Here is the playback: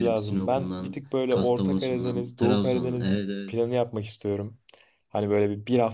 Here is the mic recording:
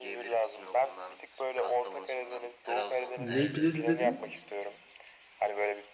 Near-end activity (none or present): present